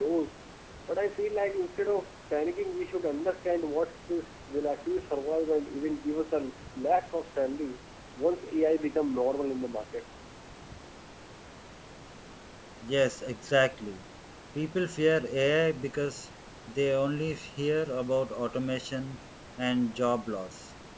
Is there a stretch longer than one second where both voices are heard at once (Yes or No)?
No